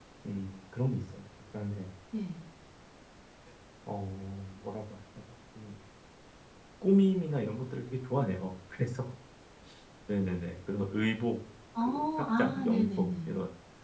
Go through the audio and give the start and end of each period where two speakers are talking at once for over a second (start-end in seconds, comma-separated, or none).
11.8-13.3